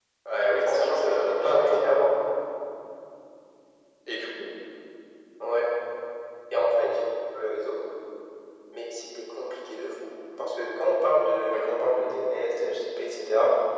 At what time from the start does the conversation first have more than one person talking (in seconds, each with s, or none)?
0.7 s